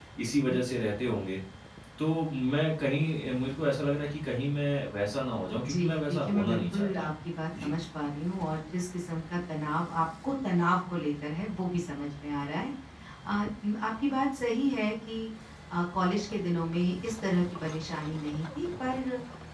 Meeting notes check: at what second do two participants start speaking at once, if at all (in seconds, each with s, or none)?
5.6 s